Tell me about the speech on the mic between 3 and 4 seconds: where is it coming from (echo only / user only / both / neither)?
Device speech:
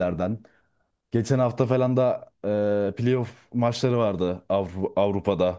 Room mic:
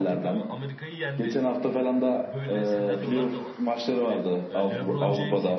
both